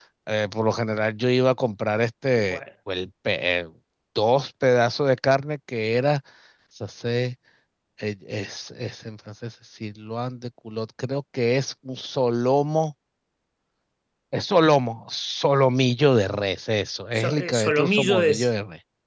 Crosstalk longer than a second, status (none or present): present